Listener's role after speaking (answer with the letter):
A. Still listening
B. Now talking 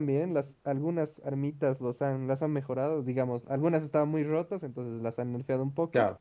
A